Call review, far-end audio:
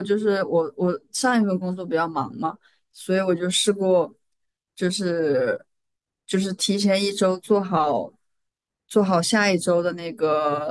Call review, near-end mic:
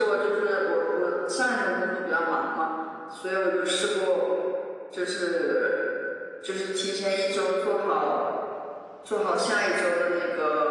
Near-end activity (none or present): none